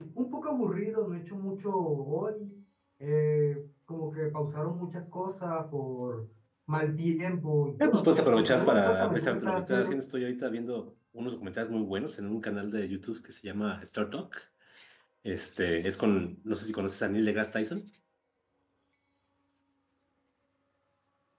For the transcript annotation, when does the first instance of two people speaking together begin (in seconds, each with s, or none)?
7.8 s